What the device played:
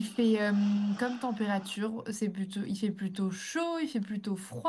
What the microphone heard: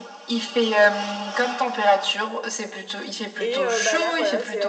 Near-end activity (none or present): present